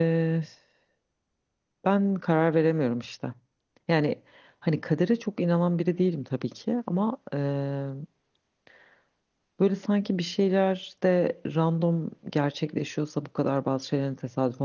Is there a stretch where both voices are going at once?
No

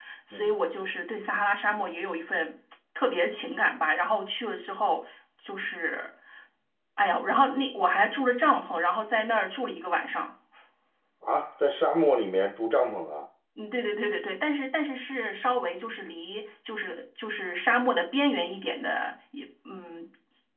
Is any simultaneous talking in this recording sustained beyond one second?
No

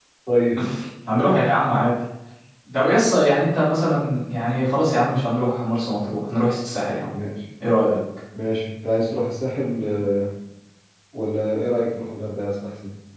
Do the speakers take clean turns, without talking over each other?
Yes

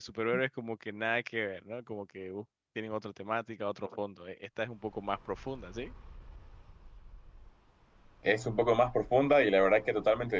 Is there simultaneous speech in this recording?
No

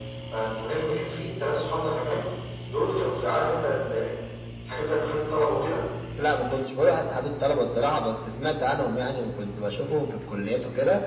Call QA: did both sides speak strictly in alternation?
Yes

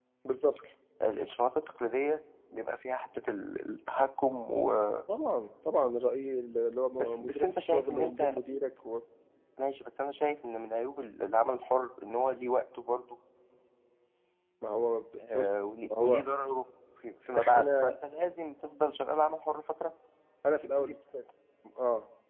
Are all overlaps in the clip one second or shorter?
No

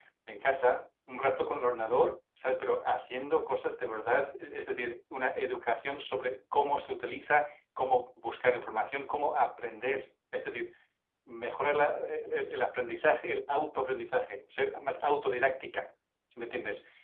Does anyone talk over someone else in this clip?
No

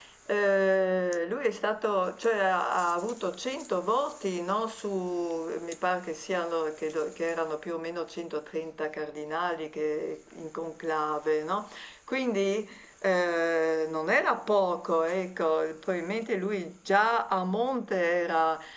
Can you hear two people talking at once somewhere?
No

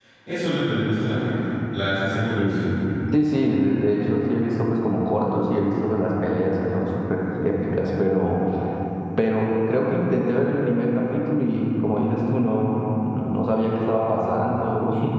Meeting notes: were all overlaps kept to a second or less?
Yes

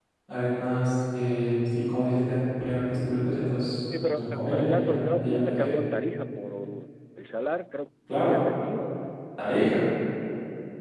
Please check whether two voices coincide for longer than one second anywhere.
Yes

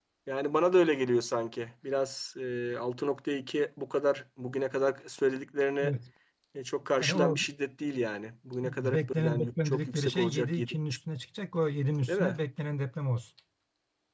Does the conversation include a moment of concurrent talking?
Yes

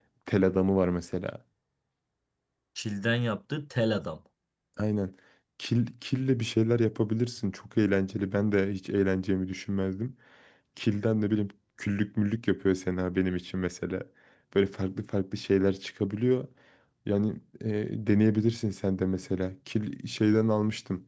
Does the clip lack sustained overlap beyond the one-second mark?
Yes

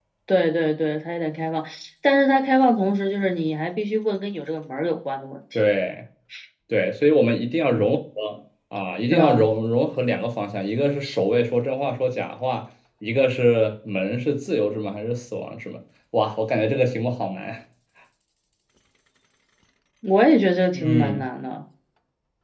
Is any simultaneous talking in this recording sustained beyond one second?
No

